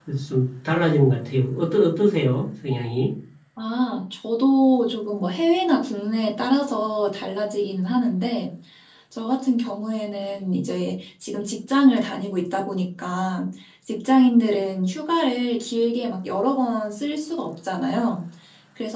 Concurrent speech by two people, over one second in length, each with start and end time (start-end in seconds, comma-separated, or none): none